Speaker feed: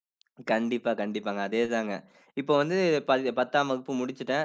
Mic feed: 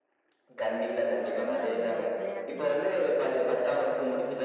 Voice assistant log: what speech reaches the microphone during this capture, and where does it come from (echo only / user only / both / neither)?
both